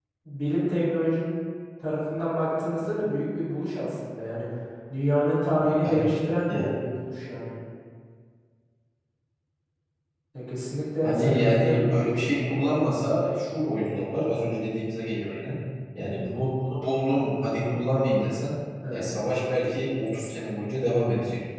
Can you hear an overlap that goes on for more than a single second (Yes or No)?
Yes